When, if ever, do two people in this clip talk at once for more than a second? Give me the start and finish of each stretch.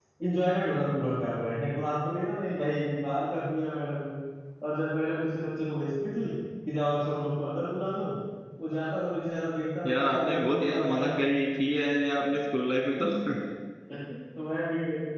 9.9-11.2

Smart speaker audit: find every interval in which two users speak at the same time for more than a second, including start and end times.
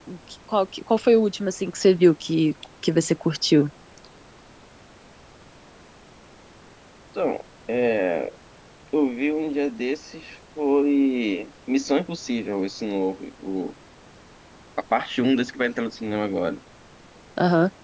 none

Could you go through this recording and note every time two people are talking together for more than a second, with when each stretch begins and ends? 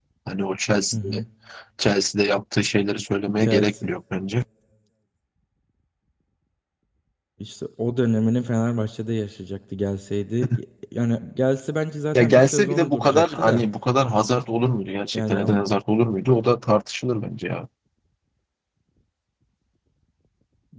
12.2-13.6

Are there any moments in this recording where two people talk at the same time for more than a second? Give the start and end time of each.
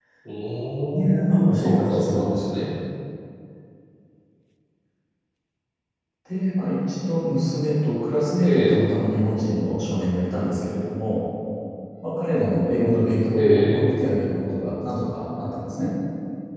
0.9-2.5

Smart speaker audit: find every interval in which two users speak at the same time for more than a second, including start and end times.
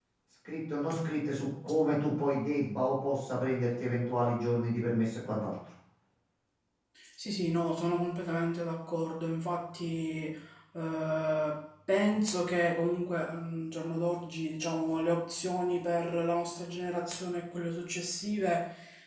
none

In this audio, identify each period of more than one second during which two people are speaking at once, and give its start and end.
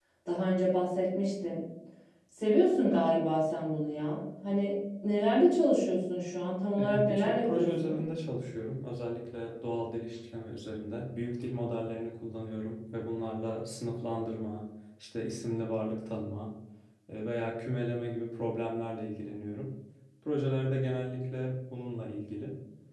6.8-8.0

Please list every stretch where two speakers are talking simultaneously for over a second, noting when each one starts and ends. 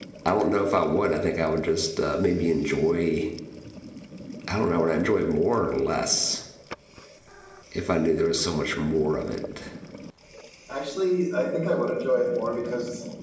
none

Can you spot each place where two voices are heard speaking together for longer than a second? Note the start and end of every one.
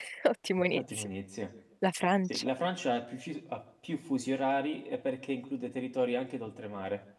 none

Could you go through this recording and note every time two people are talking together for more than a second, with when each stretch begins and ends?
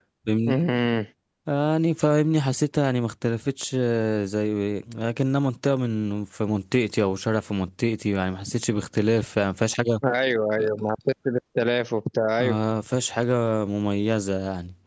none

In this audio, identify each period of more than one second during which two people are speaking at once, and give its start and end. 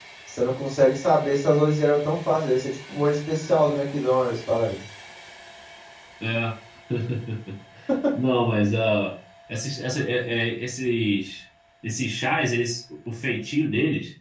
none

